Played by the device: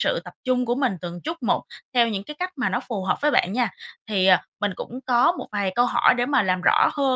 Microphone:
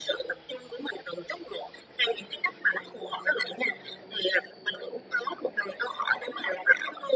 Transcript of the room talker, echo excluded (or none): none